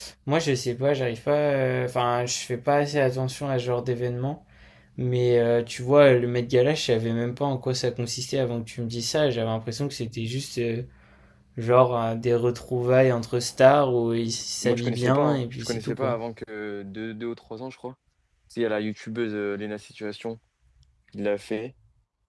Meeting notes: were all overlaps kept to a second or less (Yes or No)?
No